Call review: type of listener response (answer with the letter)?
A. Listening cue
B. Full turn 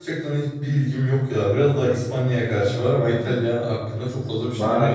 B